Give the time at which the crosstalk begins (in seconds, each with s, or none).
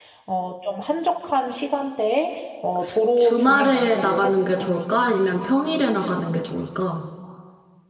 3.2 s